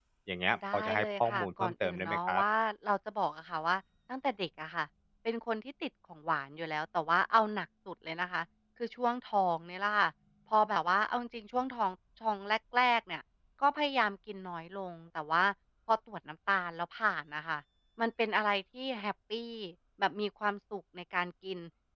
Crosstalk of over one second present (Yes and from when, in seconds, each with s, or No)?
Yes, from 0.7 s